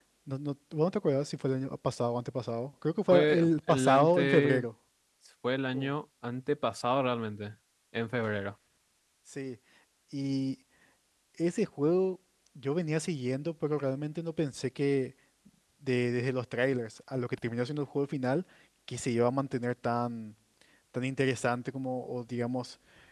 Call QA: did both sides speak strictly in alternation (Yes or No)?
No